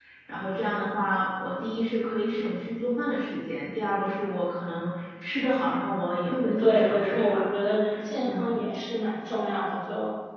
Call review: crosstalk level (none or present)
present